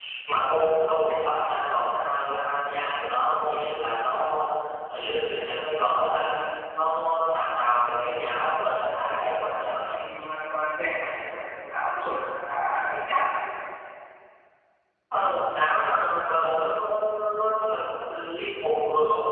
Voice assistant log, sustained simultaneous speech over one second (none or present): none